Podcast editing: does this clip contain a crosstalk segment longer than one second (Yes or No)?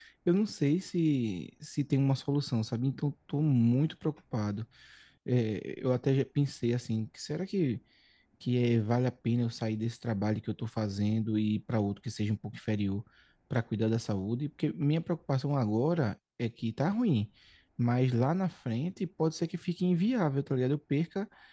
No